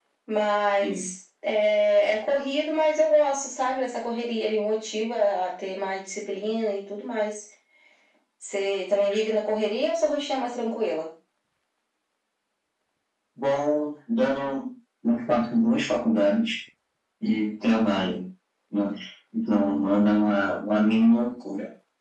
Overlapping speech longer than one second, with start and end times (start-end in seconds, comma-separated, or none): none